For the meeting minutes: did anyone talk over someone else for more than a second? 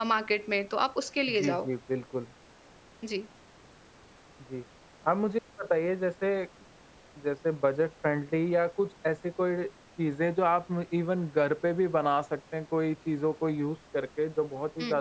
No

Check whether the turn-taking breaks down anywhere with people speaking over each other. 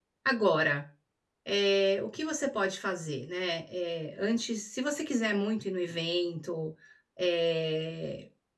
No

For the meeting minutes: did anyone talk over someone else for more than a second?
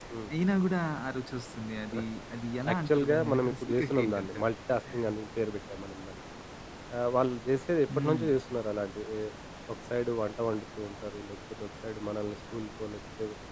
Yes, from 2.7 s

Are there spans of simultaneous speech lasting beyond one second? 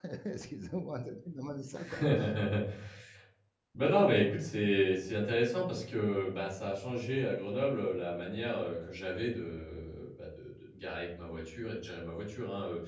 No

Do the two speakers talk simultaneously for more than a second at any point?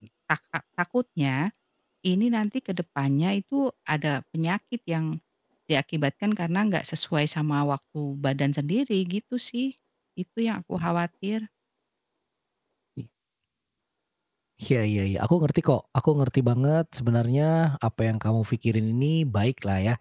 No

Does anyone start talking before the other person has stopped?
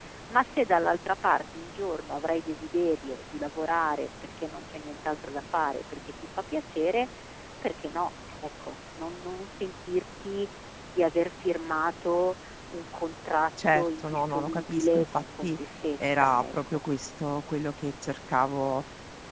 Yes, from 13.6 s

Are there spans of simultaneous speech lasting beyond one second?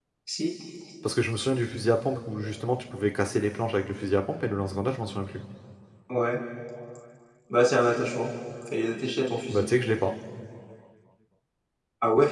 No

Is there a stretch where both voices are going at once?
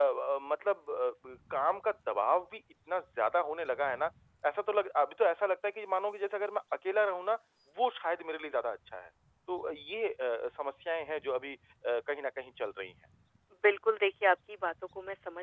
No

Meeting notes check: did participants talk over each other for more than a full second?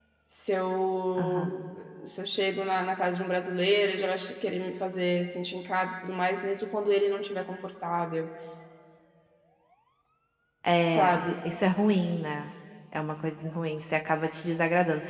No

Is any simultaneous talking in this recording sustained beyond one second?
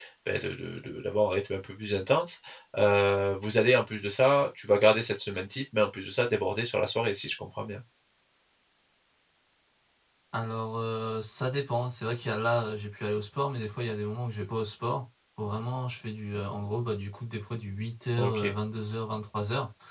No

